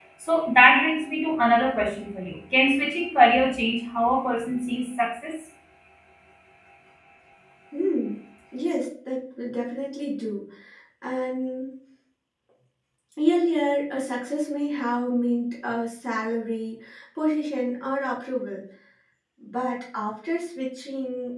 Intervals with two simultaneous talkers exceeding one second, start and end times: none

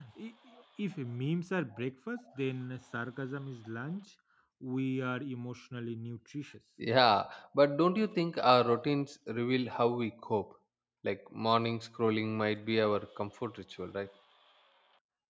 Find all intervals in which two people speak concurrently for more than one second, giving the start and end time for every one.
none

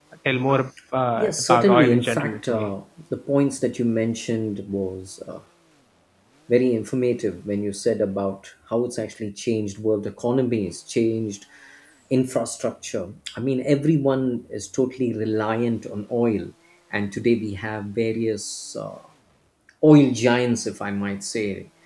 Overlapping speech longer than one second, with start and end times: 1.1-2.7

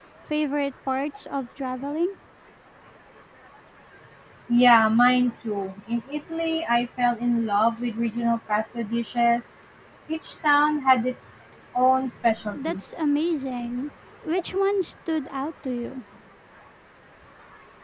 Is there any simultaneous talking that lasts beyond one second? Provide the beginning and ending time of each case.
none

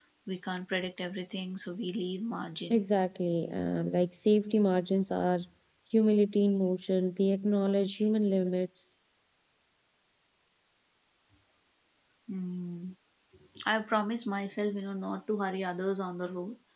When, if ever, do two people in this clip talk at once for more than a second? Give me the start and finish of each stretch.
none

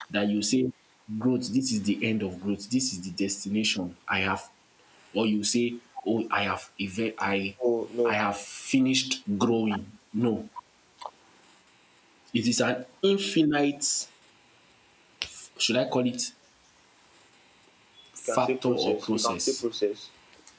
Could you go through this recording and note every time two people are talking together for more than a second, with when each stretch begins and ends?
18.3-19.6

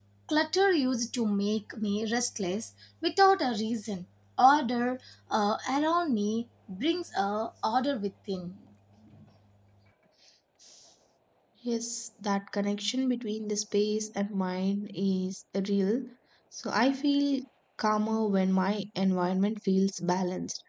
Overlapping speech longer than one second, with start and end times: none

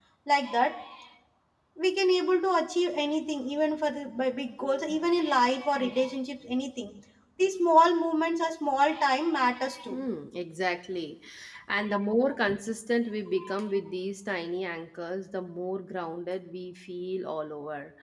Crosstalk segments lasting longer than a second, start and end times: none

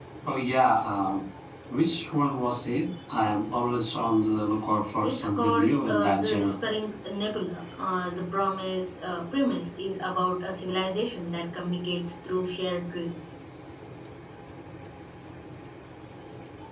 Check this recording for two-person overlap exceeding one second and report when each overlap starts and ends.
5.0-6.6

